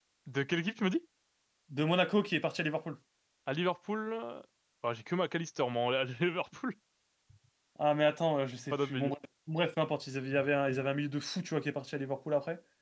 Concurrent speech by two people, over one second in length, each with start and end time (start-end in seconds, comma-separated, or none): none